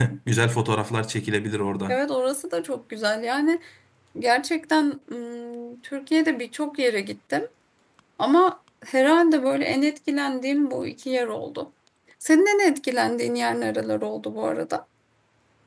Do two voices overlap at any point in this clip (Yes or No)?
No